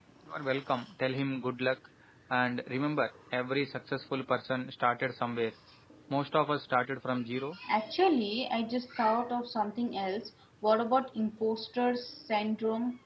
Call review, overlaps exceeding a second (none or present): none